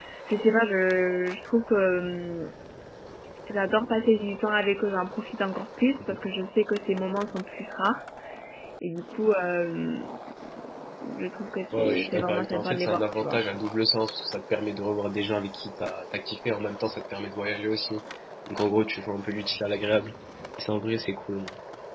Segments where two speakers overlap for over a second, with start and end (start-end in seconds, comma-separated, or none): 11.7-13.4